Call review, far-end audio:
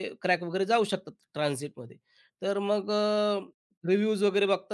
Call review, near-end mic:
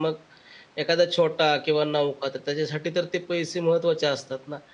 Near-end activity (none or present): present